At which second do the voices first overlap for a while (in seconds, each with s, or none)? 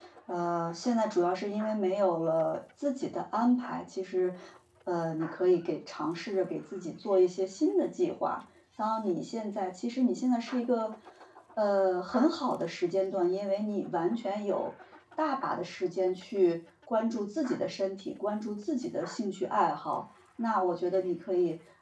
none